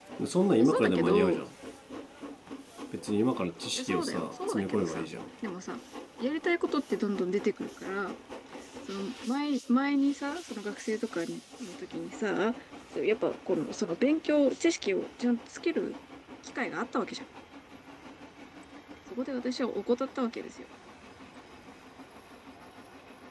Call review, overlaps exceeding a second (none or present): present